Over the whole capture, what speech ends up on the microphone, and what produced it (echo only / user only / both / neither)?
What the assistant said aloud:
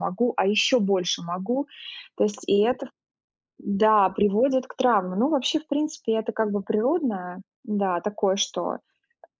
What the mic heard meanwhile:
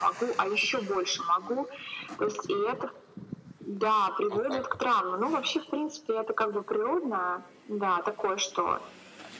both